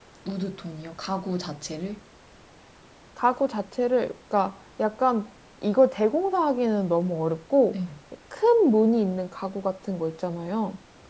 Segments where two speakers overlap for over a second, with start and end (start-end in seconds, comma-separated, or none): none